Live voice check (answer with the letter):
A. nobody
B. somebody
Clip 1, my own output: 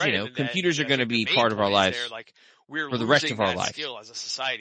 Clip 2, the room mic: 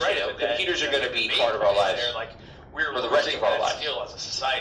A